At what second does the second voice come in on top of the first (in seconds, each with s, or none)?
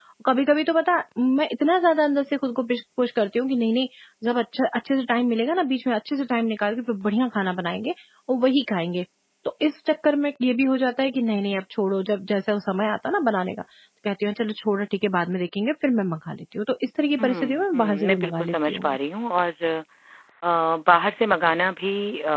17.2 s